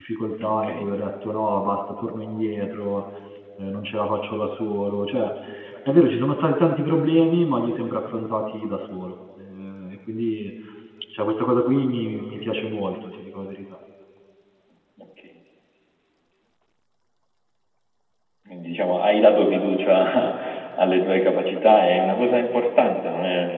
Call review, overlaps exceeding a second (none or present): none